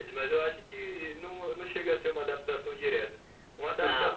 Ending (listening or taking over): listening